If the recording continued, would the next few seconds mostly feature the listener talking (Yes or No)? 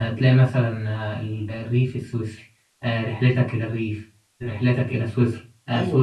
No